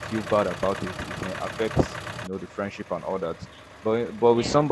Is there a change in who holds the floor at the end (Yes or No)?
No